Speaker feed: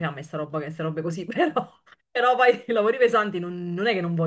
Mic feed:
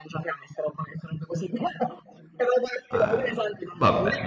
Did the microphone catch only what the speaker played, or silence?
No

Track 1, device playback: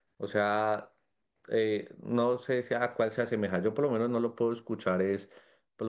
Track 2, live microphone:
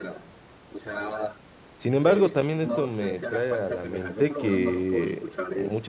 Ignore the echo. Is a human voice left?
Yes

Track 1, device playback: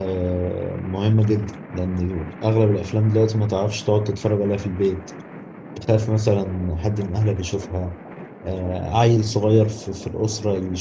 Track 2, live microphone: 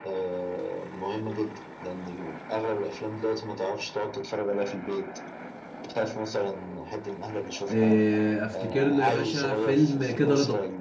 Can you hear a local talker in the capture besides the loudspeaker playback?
Yes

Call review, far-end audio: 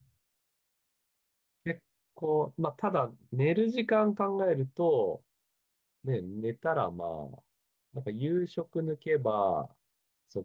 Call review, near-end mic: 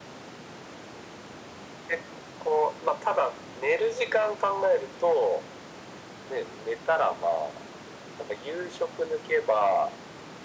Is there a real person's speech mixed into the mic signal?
No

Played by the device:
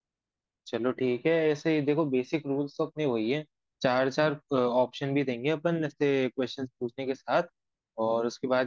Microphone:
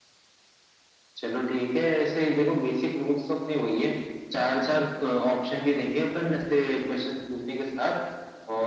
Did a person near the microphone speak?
No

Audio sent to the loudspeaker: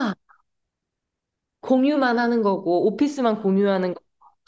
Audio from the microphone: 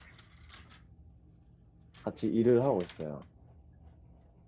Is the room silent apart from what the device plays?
No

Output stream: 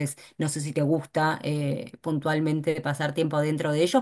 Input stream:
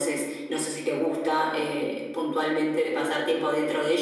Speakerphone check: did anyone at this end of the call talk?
No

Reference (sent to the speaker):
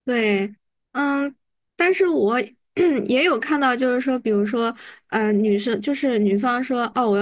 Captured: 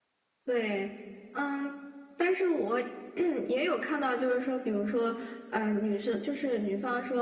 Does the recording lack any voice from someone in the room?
Yes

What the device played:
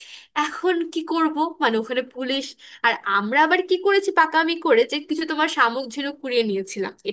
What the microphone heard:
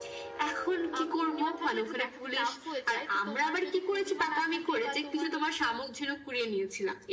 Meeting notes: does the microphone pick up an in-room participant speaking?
Yes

